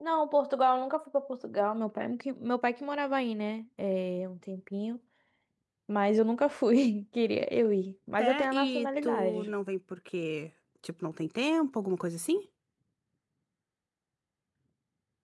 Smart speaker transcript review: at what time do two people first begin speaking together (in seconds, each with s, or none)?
8.2 s